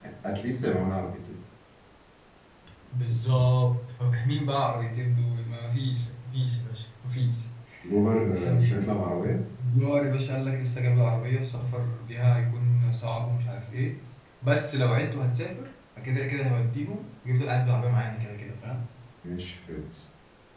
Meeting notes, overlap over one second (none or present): none